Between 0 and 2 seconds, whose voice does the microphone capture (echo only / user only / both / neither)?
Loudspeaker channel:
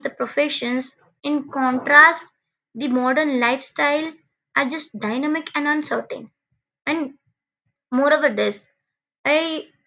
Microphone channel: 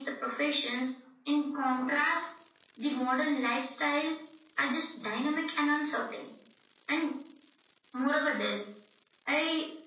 echo only